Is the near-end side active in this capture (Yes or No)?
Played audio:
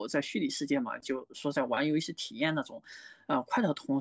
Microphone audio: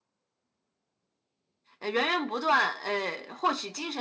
Yes